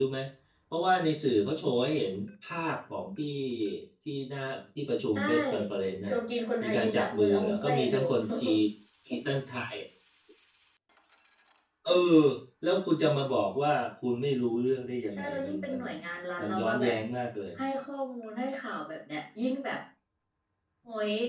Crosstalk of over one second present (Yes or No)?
Yes